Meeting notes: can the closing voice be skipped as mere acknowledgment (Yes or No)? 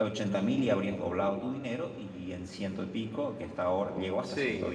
Yes